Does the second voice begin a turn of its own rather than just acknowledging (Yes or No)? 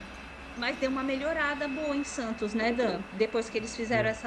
No